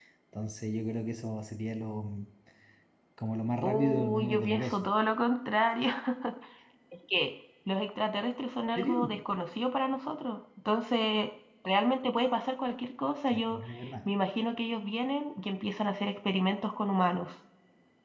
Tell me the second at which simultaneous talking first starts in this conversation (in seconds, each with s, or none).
3.6 s